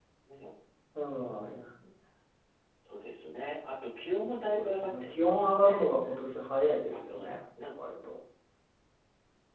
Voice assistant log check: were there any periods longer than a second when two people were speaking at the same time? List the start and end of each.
4.4-5.9

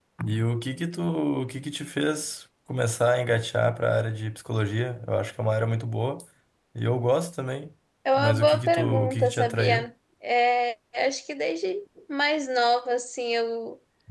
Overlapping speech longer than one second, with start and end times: 8.2-9.9

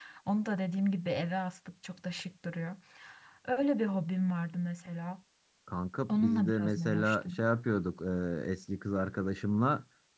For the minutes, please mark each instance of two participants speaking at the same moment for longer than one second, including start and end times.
6.1-7.4

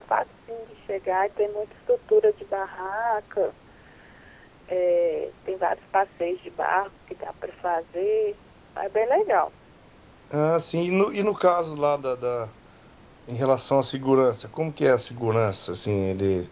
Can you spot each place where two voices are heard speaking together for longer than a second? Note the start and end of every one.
none

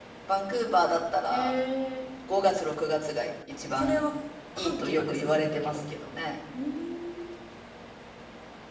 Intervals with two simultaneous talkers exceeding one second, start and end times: 4.6-5.8

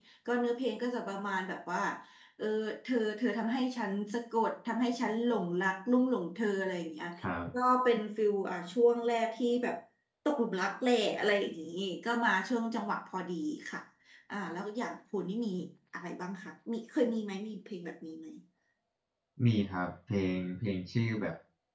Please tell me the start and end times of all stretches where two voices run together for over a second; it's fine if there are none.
none

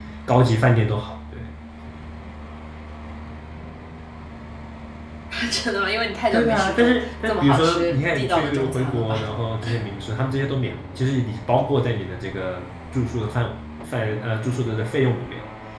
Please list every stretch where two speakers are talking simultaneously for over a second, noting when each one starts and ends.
6.3-9.3

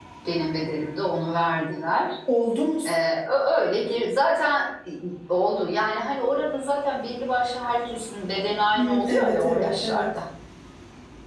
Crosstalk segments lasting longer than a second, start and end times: 8.8-10.1

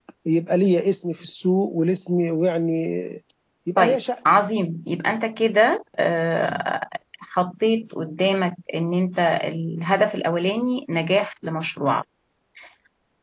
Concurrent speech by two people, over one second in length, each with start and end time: none

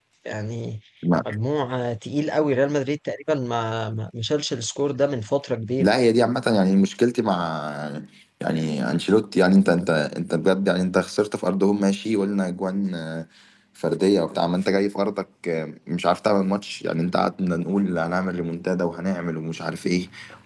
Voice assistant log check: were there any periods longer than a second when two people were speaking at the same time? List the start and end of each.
none

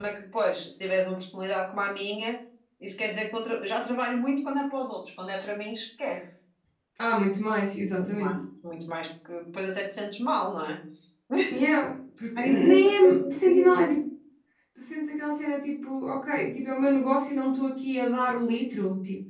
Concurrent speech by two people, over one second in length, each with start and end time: 12.4-13.8

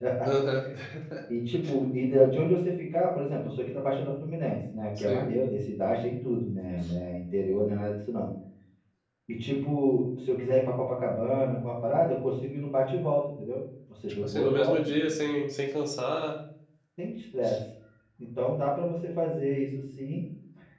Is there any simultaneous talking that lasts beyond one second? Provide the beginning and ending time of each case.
14.1-15.3

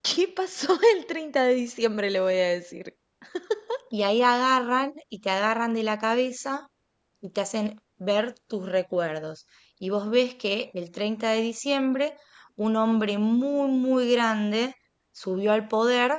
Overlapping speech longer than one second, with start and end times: none

